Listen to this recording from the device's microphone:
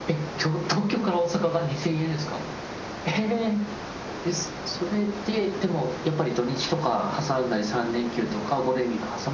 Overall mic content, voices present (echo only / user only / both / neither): echo only